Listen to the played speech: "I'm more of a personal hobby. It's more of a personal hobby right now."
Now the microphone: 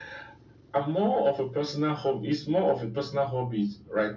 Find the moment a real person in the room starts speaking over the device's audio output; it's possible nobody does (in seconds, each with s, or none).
none